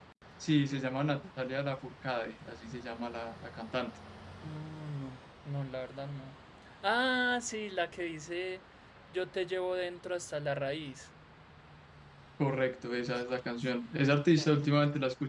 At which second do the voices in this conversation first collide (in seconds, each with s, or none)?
none